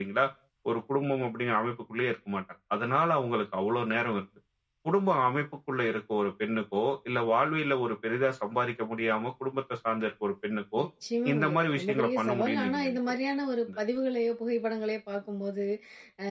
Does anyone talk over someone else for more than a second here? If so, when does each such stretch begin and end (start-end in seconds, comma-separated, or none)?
11.3-13.0